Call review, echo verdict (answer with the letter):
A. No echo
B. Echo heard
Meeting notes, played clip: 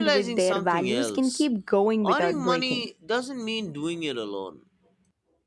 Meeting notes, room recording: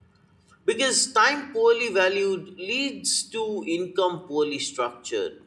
A